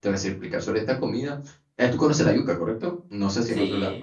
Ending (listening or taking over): taking over